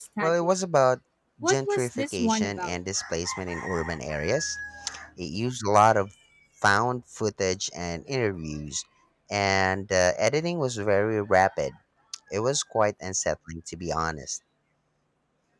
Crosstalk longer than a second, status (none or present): present